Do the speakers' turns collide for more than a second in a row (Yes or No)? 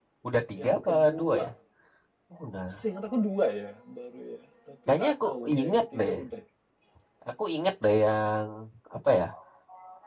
Yes